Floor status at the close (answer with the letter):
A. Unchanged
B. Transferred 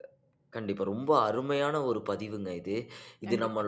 A